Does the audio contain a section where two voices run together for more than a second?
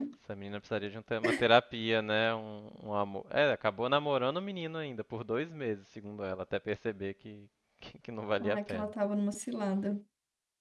No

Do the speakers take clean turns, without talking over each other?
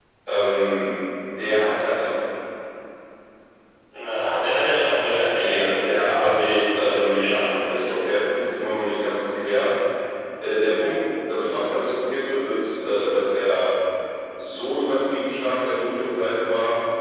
No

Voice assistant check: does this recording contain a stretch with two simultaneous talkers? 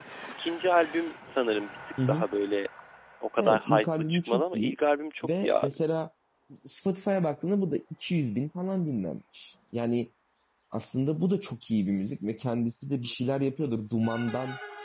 Yes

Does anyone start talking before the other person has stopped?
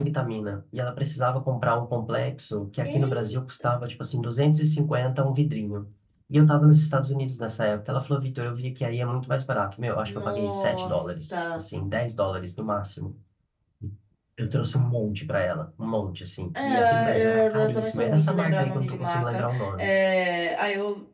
Yes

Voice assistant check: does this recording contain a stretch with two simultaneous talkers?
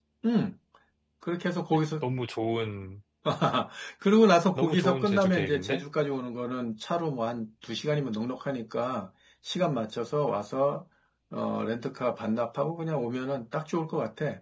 Yes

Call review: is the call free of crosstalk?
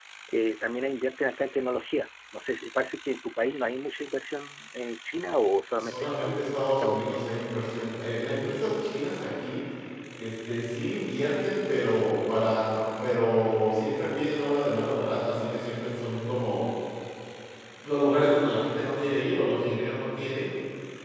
No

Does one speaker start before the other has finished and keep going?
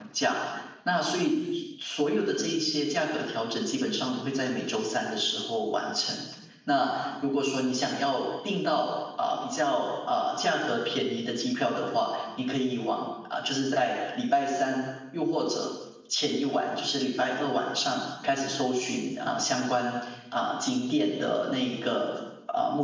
No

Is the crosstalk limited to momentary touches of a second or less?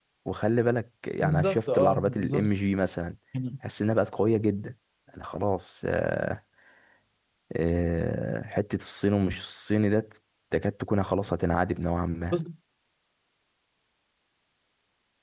No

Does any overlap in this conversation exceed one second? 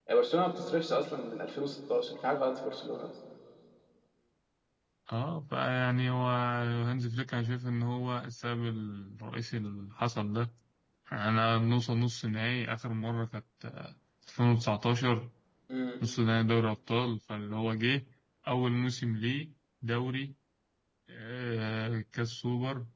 No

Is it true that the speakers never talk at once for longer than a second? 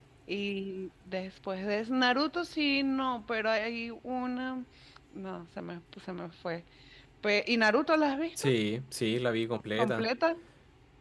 Yes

